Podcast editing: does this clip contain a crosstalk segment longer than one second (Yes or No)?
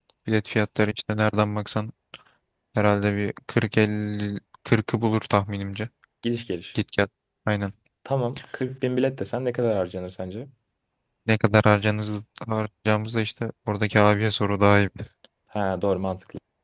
No